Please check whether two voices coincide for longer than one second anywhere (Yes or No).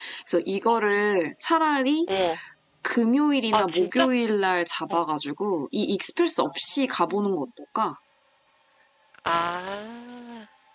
No